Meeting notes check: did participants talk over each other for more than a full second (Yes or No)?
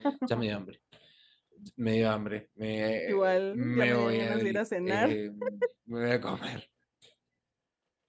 Yes